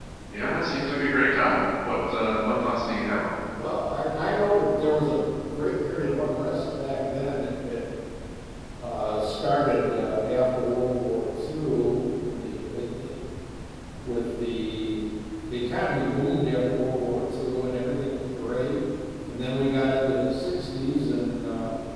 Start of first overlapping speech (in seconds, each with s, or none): none